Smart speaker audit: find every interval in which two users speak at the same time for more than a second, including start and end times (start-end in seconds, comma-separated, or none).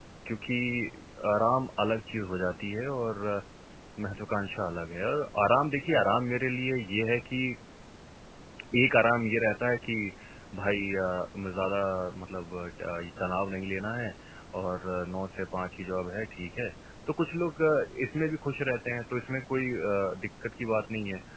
none